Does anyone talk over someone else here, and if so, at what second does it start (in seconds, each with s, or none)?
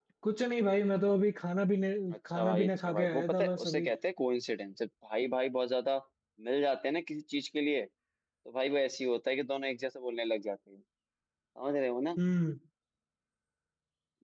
2.1 s